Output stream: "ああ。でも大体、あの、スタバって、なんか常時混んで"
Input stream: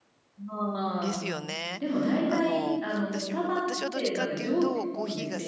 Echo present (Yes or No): Yes